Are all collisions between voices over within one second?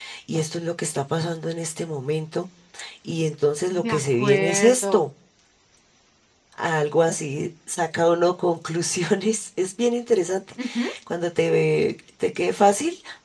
No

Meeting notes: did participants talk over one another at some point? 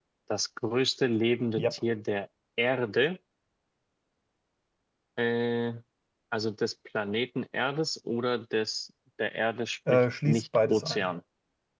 Yes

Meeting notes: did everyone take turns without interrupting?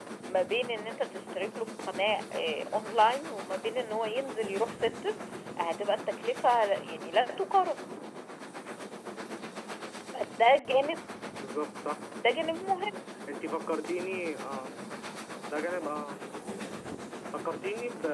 Yes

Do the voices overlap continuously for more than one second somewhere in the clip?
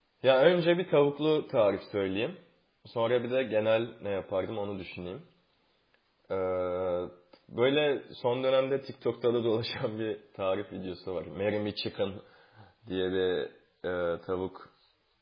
No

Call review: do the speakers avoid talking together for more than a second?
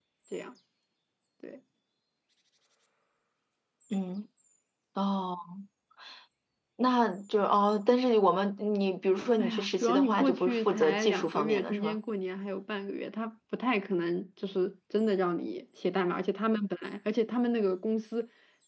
No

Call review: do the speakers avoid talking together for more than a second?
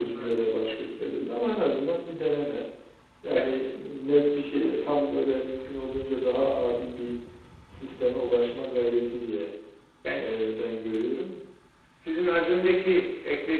Yes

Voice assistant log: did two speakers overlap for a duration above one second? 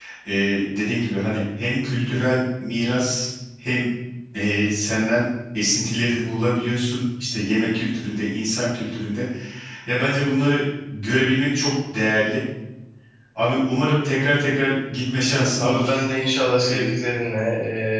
No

